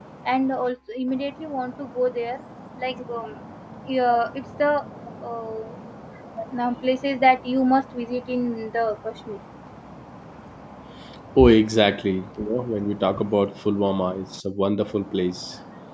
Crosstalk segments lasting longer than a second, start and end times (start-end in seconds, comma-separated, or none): none